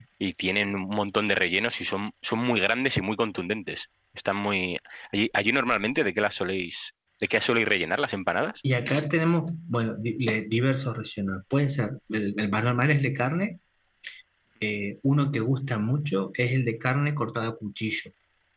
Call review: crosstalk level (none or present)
none